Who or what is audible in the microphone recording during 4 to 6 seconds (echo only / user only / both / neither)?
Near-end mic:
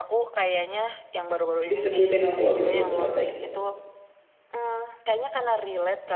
echo only